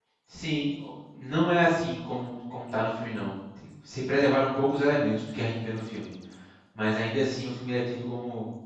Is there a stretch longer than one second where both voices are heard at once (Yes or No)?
No